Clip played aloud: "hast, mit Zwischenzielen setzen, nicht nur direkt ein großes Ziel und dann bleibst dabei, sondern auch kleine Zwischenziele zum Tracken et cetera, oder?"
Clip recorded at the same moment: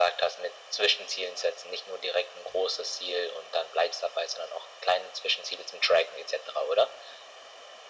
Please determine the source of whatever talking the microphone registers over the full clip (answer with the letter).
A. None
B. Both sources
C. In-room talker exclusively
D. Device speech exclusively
D